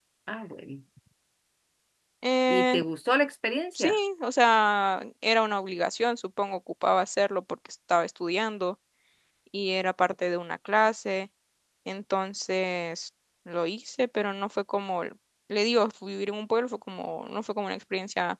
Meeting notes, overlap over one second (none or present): none